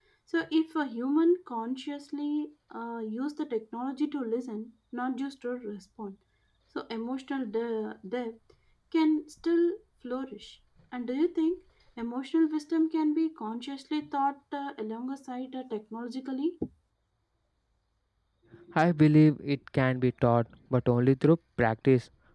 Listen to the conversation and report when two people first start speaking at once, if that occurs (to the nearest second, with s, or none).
none